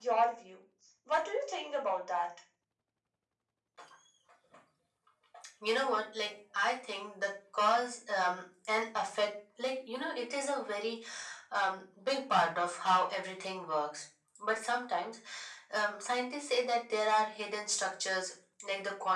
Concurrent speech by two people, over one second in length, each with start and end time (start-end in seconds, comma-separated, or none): none